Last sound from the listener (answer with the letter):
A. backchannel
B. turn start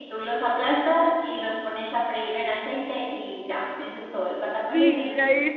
B